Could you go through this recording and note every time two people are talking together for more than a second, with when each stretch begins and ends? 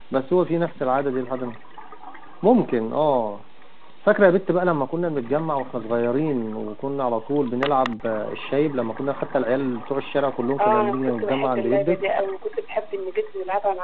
10.6-12.0

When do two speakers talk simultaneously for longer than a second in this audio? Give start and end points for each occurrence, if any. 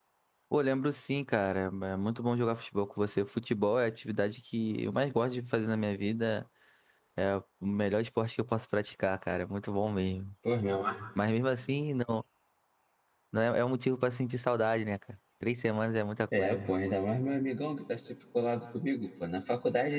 none

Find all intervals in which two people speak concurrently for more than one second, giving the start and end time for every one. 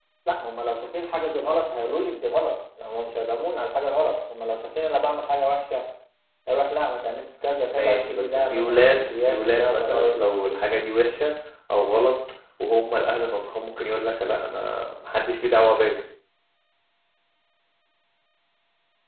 7.7-10.2

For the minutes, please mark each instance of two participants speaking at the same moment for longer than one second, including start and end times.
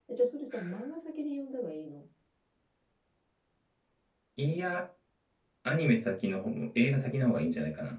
none

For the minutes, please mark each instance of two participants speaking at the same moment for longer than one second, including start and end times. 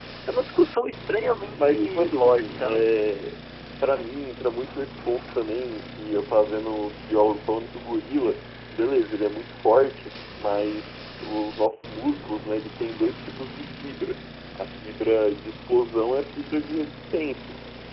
1.6-2.9

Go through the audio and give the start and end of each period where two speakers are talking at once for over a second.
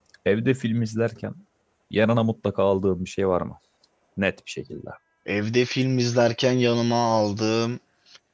none

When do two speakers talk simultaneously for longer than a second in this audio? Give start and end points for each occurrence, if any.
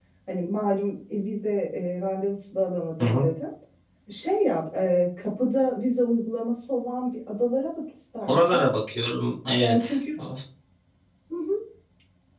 none

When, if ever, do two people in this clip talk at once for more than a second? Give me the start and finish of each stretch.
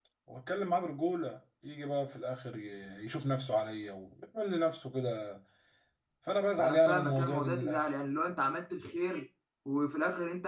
6.6-7.9

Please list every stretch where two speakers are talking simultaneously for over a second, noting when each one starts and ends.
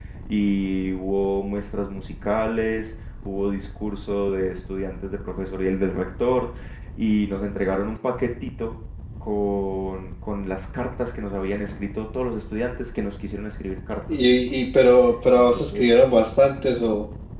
none

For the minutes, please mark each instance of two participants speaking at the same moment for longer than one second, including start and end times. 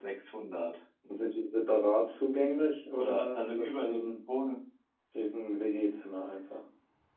2.9-4.2

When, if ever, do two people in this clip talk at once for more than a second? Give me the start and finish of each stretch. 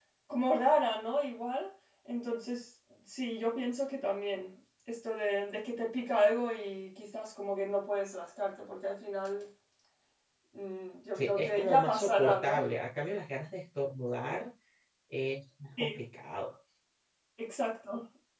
11.2-12.6

